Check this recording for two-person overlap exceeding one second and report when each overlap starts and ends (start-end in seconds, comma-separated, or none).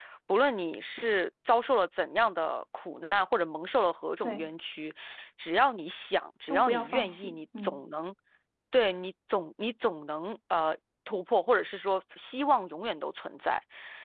6.5-7.8